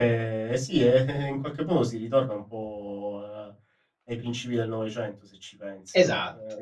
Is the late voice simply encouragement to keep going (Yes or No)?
Yes